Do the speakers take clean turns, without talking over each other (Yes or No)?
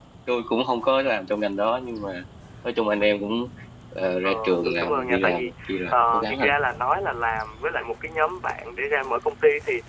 No